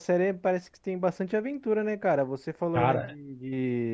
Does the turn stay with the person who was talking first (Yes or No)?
Yes